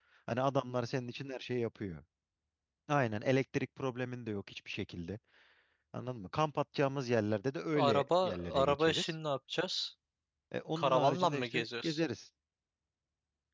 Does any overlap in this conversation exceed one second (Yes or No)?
Yes